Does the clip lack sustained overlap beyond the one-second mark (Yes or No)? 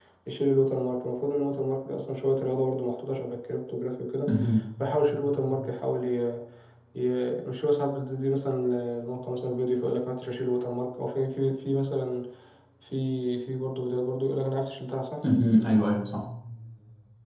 Yes